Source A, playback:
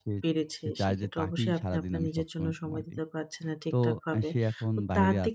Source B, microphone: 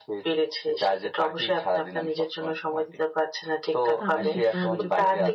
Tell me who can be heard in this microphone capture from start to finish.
both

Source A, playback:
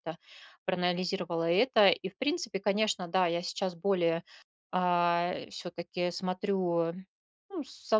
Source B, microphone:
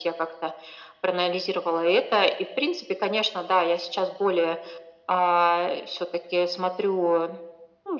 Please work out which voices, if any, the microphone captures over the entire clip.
echo only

